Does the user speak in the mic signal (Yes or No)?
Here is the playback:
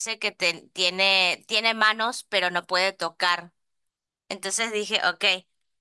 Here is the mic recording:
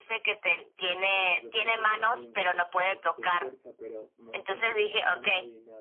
Yes